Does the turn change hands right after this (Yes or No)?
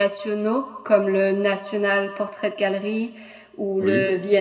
No